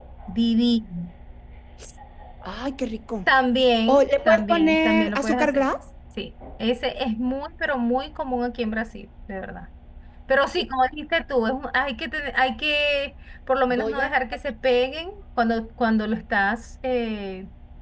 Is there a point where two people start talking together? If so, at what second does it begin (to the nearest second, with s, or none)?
4 s